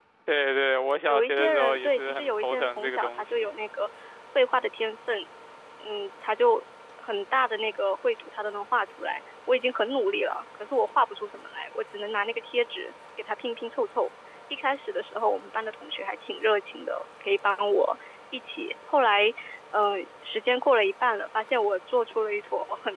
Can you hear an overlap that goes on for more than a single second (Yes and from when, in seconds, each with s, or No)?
Yes, from 1.1 s